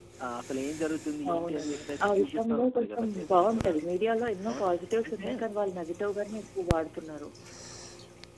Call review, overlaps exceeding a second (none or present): present